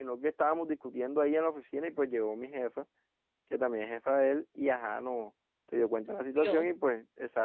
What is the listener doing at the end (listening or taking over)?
listening